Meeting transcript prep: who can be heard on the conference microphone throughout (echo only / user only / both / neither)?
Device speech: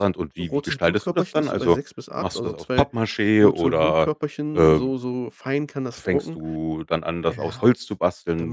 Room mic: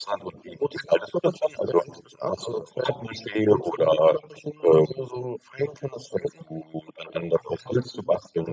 echo only